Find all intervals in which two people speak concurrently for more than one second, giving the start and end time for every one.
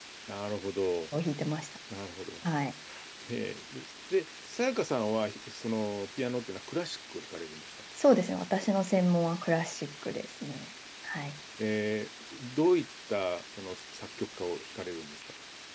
none

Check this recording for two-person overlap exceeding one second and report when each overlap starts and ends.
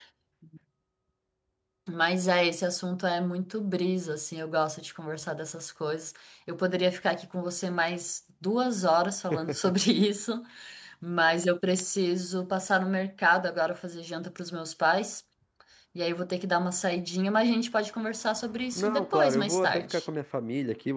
18.7-20.1

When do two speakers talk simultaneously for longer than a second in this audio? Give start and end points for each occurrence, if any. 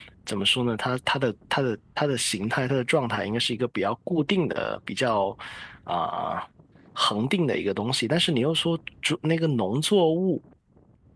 none

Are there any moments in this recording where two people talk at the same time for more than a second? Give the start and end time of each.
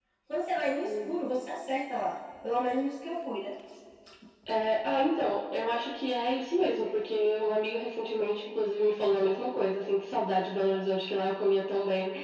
none

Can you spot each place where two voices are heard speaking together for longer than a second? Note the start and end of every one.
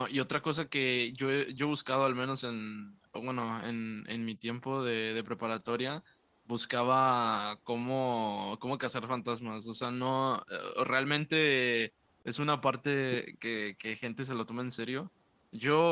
none

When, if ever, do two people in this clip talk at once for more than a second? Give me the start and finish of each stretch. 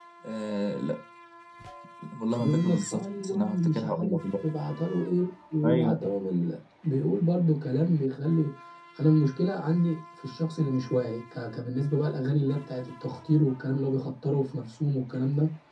2.4-4.2

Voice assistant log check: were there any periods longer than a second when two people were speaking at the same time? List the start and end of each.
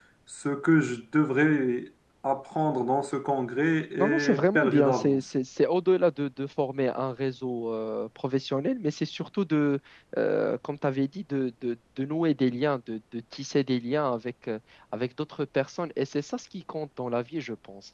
4.0-5.2

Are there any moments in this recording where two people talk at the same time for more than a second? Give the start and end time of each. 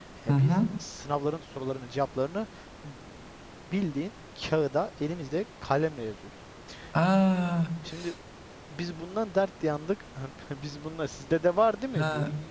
none

